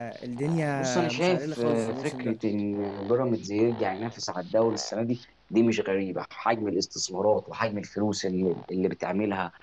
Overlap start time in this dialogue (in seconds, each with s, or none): 0.8 s